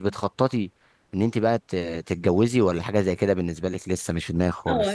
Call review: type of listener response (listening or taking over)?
taking over